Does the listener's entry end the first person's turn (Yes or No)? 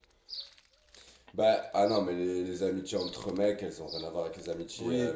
No